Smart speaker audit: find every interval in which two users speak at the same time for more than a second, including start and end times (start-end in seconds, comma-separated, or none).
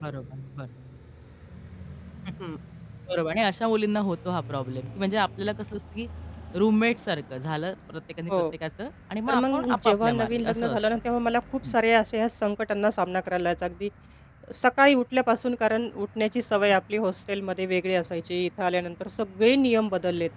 9.3-10.8